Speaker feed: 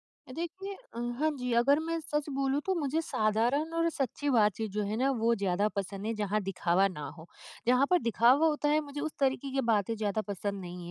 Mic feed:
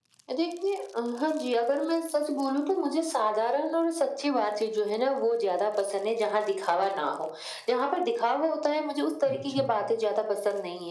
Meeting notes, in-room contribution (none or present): present